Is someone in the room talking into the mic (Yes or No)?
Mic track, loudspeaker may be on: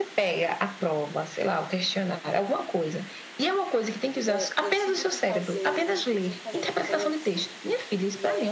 Yes